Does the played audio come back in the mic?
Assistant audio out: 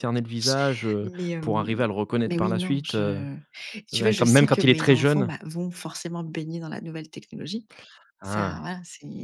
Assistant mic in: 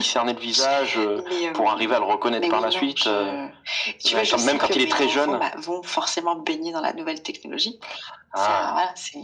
Yes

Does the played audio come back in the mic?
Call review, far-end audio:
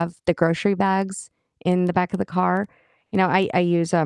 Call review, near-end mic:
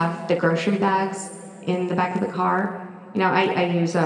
Yes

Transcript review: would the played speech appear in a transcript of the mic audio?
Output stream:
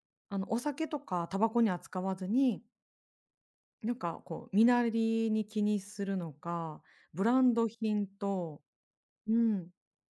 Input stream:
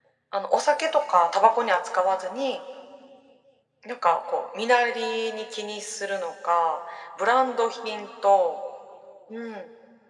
Yes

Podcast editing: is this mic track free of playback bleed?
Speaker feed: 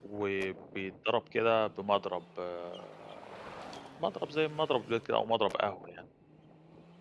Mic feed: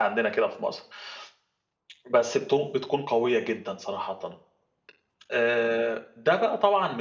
Yes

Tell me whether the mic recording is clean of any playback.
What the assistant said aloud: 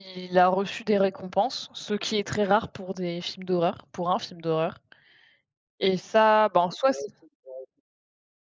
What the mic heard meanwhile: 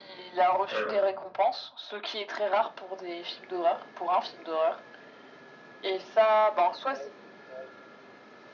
No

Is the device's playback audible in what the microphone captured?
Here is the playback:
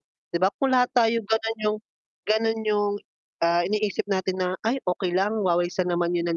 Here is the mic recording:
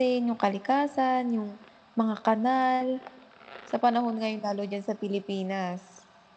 No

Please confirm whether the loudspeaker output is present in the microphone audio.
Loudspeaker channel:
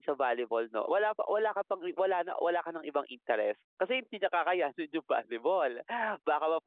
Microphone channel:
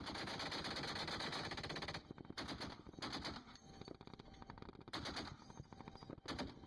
No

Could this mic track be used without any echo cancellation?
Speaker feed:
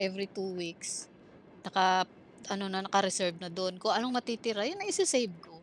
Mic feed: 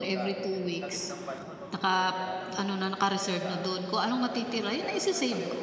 No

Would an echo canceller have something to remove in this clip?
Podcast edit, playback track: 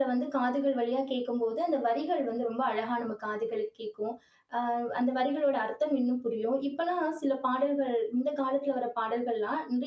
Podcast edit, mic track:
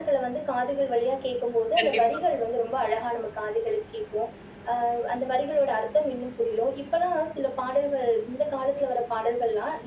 Yes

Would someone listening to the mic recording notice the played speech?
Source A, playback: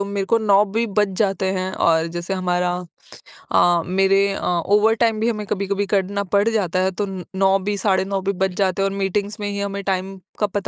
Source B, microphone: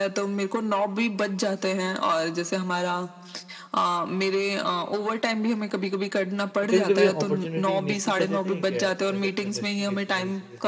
Yes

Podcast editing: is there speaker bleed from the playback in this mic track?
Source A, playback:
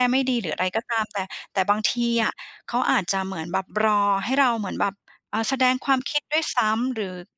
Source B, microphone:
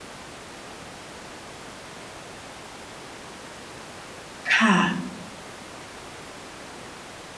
No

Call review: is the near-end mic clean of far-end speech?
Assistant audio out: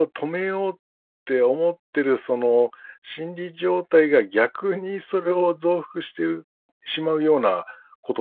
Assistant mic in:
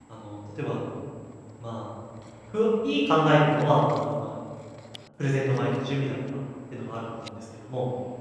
Yes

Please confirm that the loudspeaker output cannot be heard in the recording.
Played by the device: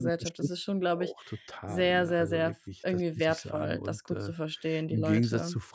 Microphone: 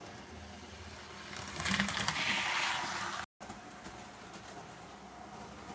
Yes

